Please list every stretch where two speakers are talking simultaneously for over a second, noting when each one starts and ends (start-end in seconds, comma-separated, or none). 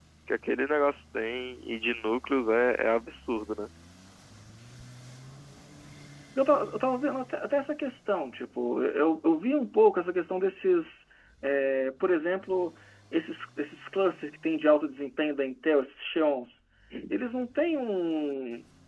none